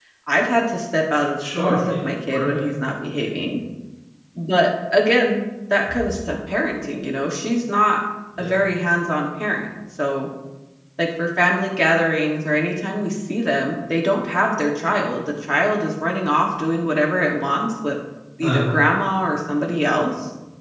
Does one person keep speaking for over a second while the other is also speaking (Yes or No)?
Yes